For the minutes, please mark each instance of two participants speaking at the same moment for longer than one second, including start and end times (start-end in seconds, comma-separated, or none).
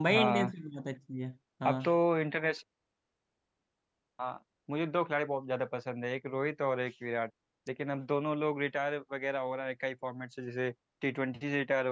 none